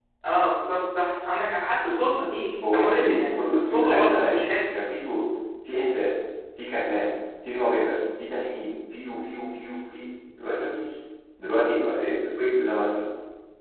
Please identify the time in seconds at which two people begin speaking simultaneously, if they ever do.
2.6 s

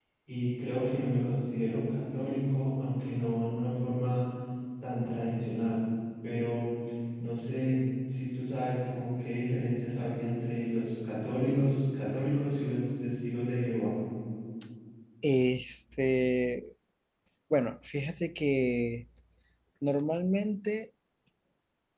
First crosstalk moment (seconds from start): none

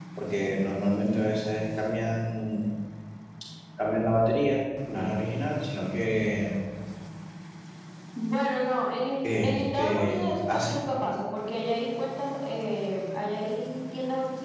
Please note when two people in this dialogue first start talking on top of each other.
9.2 s

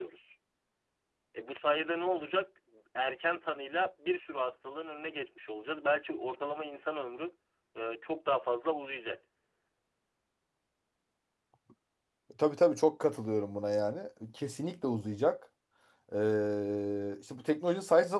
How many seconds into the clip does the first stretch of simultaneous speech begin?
none

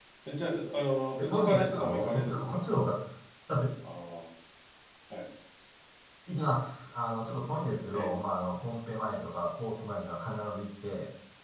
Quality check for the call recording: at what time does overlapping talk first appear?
1.2 s

